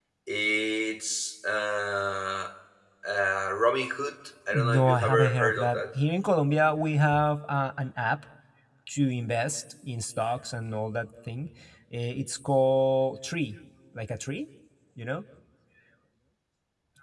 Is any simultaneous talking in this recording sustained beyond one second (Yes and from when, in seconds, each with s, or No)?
Yes, from 4.5 s